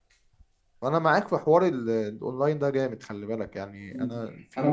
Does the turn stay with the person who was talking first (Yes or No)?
No